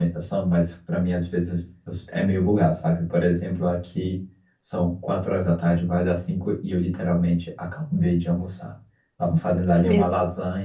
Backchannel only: Yes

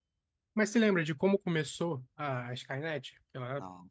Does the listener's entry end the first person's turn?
No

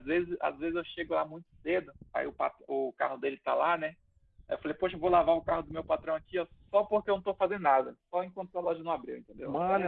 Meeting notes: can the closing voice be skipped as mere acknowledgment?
No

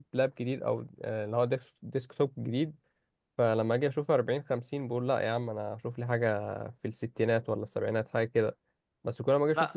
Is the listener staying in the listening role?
Yes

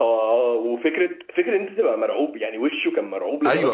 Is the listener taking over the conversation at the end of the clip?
Yes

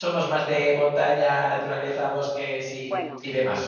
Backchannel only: No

